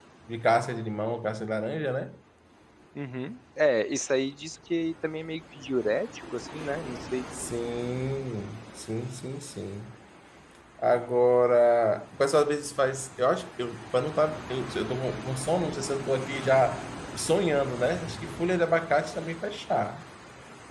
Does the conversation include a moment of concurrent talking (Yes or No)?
No